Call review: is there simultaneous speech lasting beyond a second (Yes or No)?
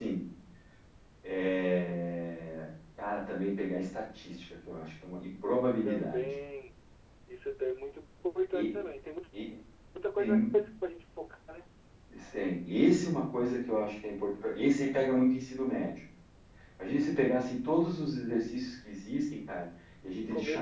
No